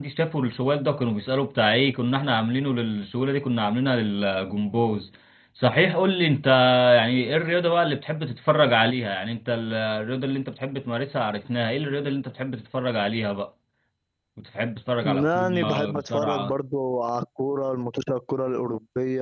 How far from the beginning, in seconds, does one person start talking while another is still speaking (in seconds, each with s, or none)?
15.0 s